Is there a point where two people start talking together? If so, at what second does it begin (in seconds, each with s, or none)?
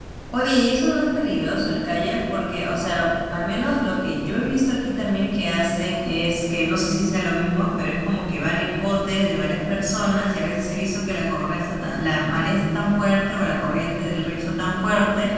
none